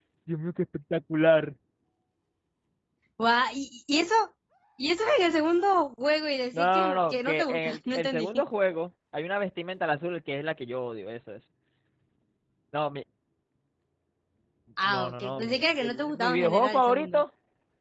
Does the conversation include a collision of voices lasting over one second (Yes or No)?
Yes